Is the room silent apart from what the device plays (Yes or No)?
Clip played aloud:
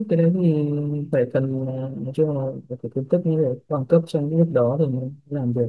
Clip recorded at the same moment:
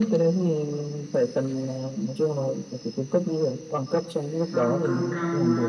No